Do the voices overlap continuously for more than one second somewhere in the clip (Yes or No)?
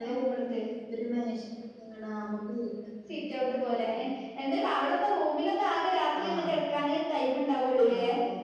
No